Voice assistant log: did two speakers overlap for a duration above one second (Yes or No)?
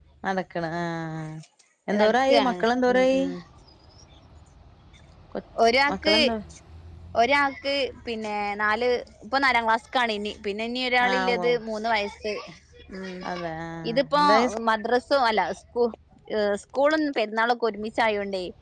Yes